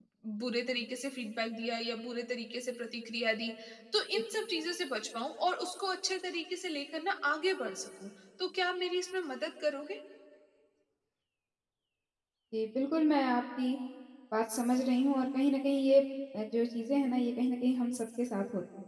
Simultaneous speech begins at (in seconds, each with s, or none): none